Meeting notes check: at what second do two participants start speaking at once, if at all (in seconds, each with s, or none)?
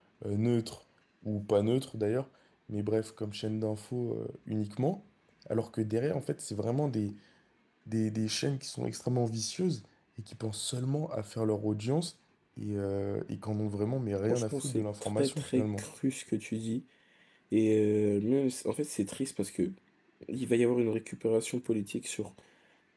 14.2 s